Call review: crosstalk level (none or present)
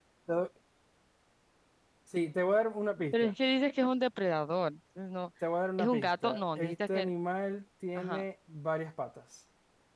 present